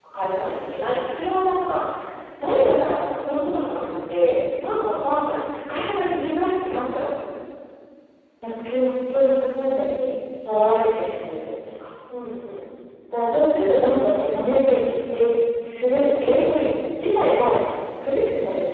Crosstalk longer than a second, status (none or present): none